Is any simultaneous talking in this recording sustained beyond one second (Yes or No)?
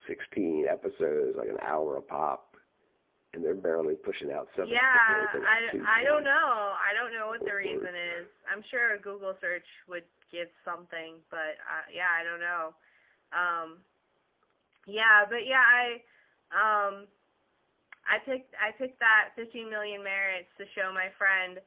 Yes